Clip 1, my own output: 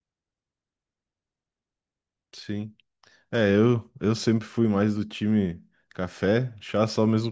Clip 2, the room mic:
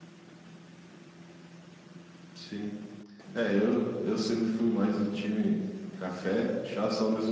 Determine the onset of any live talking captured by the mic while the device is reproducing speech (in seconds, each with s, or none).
none